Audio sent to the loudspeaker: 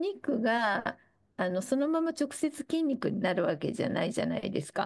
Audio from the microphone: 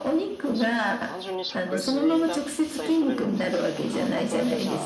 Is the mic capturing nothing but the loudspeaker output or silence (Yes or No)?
No